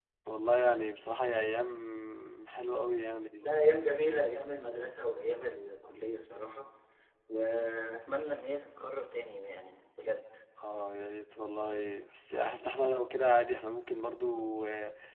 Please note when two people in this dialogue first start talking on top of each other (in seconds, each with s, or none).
none